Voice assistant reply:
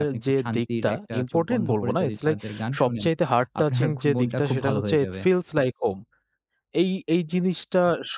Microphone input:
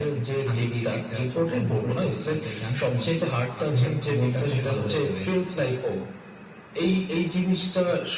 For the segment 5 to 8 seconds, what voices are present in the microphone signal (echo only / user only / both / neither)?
echo only